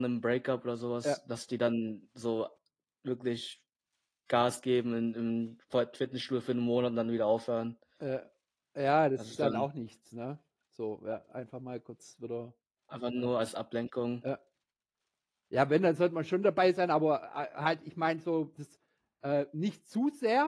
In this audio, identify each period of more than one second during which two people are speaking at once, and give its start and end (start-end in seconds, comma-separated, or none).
none